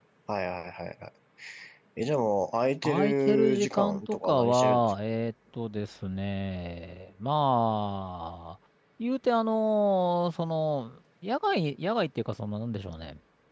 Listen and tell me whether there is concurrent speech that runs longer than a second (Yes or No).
Yes